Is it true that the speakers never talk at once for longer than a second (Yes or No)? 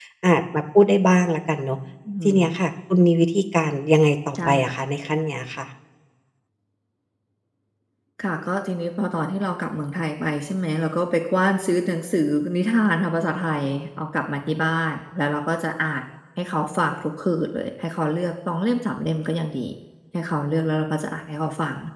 Yes